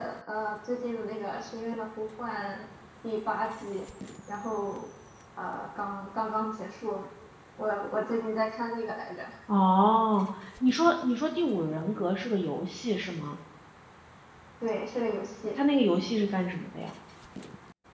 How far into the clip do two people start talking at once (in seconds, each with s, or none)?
none